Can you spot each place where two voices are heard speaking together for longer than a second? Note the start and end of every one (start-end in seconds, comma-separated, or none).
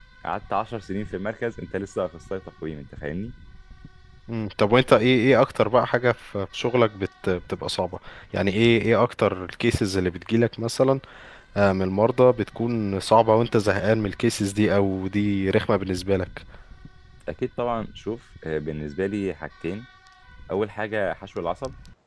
none